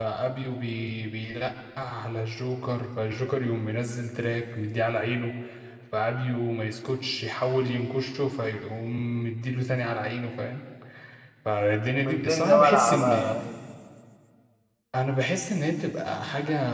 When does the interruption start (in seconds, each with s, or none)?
11.9 s